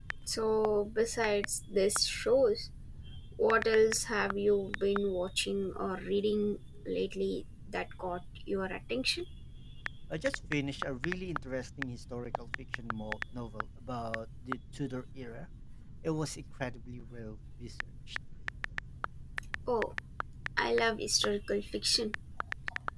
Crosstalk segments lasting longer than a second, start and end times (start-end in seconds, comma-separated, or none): none